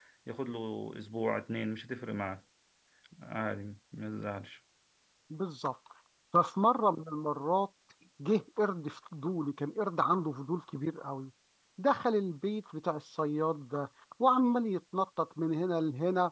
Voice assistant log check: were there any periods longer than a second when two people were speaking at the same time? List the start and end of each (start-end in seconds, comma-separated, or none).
none